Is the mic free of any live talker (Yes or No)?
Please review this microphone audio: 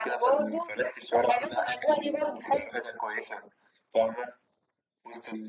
Yes